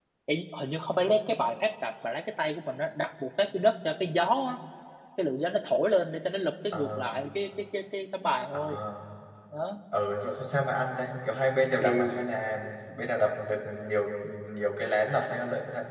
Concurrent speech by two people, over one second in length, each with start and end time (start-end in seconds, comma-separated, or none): none